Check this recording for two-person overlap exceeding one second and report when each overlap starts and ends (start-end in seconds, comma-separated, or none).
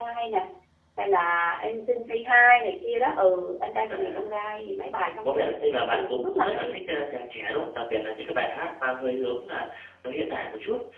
5.2-6.8